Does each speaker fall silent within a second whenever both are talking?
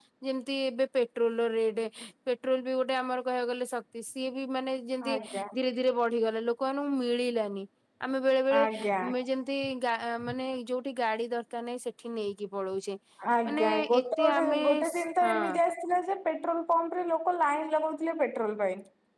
No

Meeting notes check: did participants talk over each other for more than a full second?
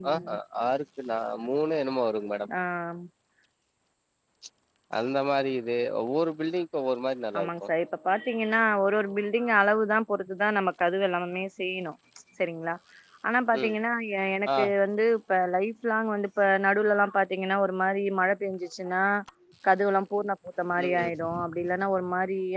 No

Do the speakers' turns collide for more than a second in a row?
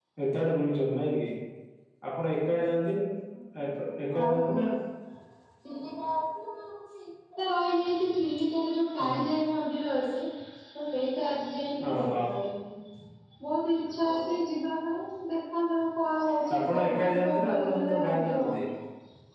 Yes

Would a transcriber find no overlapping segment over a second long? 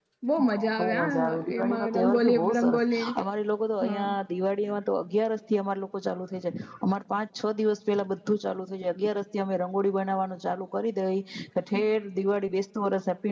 No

